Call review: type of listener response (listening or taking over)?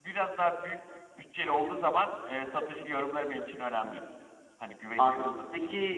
taking over